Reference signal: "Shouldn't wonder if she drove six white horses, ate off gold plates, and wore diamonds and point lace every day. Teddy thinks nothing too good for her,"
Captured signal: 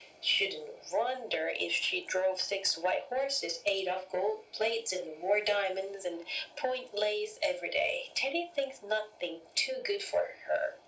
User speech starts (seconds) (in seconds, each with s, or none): none